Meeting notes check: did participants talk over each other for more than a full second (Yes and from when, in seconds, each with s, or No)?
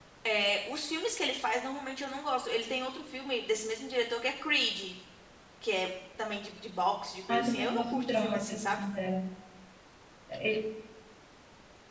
Yes, from 7.3 s